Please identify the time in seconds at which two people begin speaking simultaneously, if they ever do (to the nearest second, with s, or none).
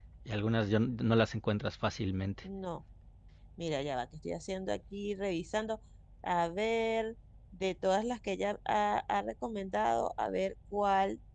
none